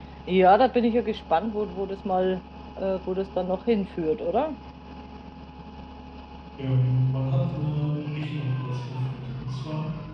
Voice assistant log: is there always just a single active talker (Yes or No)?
Yes